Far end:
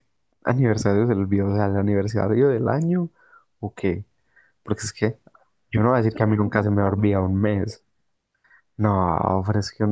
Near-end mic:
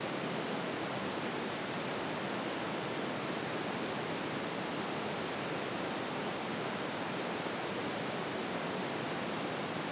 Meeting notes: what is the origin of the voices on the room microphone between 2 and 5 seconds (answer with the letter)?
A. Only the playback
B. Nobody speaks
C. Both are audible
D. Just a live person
B